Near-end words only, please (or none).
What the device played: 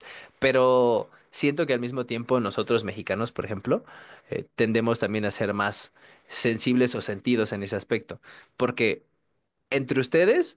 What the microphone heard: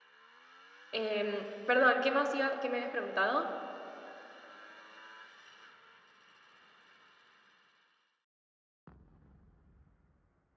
Em, perdón, ¿qué más iba, qué me habías preguntado?